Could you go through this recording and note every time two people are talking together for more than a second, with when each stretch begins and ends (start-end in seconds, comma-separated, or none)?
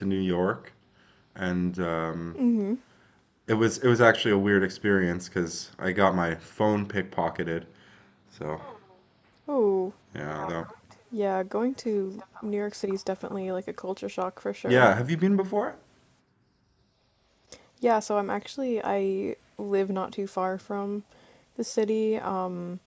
none